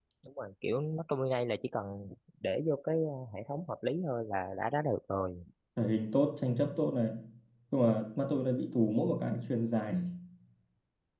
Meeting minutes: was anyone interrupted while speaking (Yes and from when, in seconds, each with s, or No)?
No